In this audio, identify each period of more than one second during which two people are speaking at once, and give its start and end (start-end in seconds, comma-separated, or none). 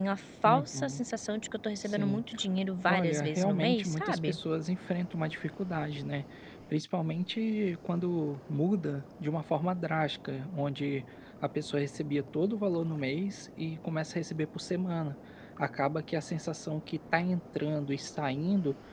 2.9-4.4